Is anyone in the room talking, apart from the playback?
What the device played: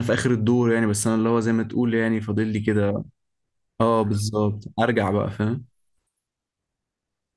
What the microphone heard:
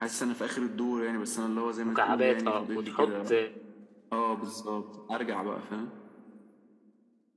Yes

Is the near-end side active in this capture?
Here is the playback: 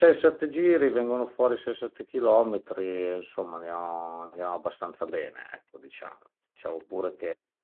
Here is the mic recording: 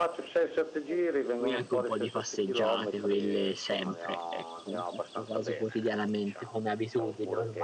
Yes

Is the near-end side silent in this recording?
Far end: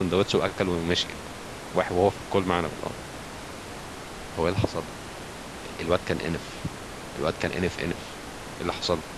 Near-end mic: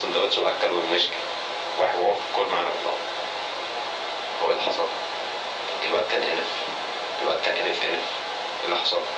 Yes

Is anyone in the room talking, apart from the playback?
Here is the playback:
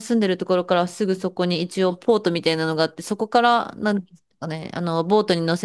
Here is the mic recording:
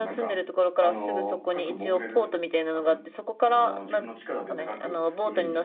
Yes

